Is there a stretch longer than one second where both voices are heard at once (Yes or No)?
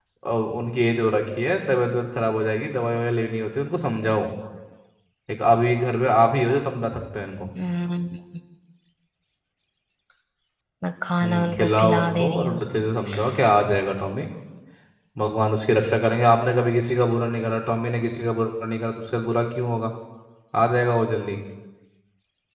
Yes